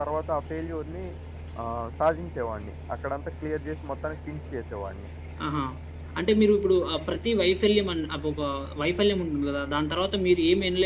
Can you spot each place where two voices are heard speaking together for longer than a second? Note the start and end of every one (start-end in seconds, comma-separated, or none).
none